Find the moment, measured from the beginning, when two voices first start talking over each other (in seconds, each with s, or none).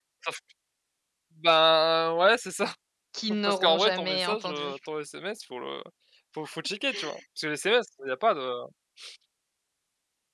3.5 s